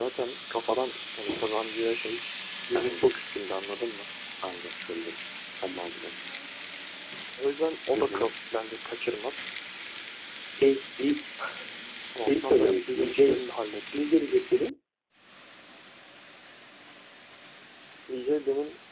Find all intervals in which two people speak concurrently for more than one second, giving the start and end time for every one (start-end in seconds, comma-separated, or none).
12.2-13.4